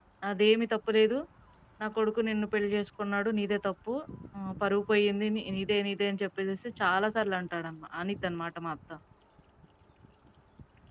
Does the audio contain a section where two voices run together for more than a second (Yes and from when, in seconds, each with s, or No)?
No